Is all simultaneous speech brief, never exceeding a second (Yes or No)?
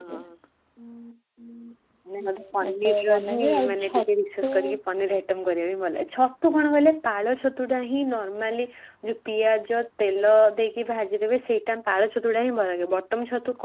No